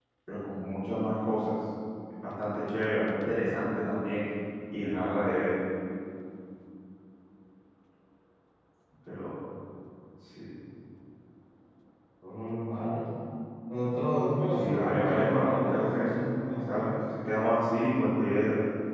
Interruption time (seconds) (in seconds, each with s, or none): 14.6 s